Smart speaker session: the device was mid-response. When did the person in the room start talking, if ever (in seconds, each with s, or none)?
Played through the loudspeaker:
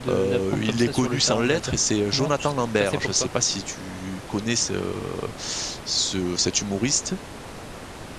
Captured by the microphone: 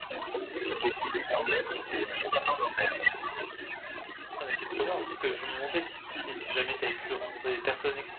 4.4 s